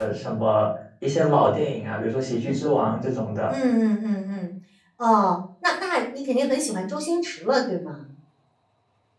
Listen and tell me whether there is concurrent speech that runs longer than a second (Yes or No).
No